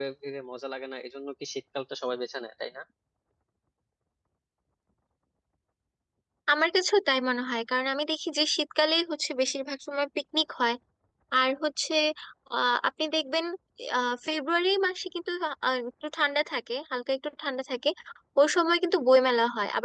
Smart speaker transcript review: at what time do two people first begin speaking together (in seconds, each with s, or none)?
none